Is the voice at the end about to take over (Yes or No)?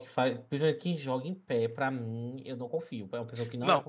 Yes